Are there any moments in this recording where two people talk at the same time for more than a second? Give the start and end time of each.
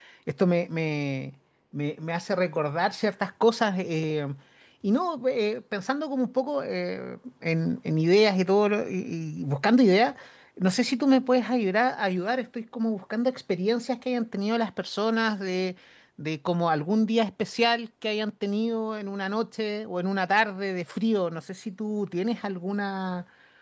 none

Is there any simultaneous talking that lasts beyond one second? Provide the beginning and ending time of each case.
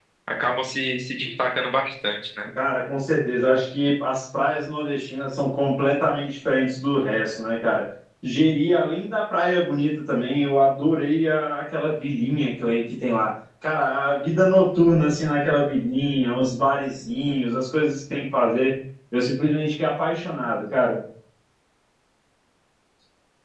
none

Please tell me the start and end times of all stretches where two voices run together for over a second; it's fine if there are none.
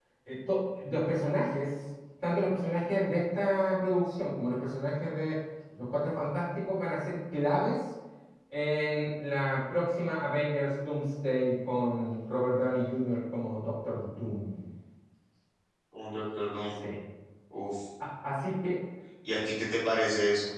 none

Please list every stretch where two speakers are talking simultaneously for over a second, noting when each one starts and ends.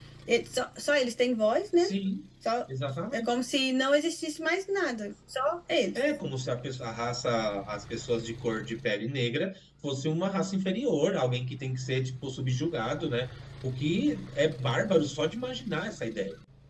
none

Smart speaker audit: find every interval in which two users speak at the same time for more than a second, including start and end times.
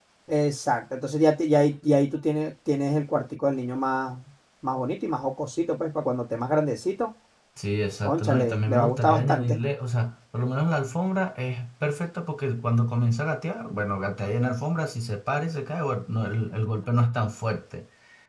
8.0-9.6

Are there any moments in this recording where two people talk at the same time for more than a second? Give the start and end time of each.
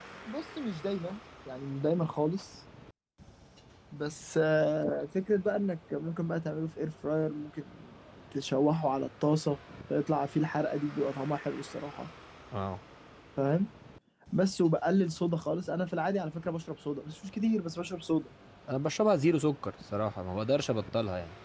none

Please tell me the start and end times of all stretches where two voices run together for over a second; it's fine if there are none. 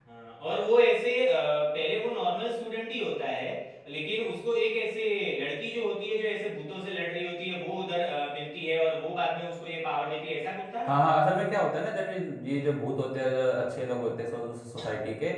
none

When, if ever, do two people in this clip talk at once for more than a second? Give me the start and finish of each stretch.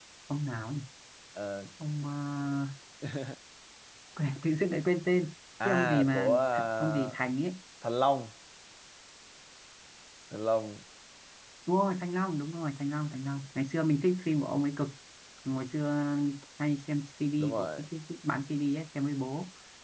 5.6-7.2

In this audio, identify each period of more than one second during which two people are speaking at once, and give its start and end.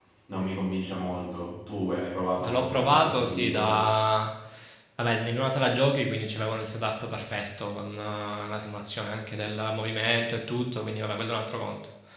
2.4-3.9

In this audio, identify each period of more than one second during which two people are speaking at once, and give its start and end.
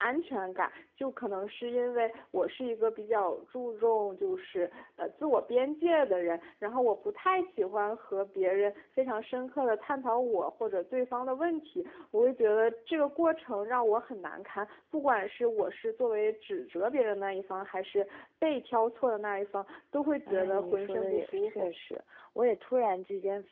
20.3-21.7

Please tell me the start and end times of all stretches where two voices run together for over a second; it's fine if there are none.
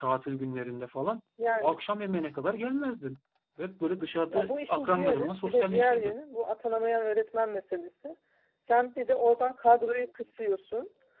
4.3-6.2

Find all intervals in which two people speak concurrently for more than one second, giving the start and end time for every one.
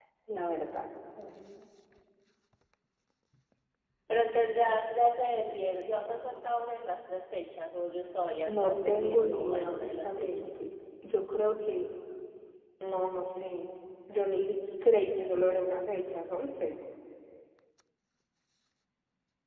8.4-10.5

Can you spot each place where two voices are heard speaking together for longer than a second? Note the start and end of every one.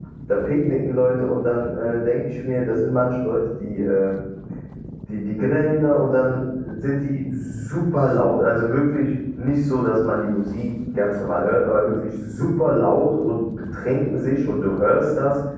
none

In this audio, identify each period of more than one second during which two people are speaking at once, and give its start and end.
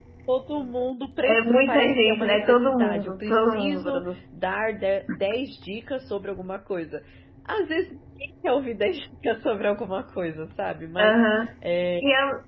1.2-4.0

